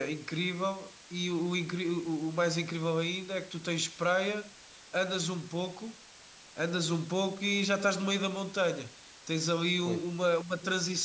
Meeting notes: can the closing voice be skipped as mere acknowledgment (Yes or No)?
Yes